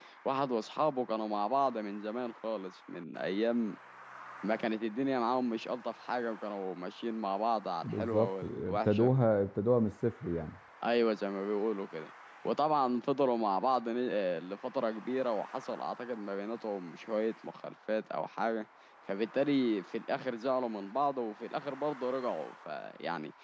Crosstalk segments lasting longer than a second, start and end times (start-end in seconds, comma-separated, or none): 7.8-9.1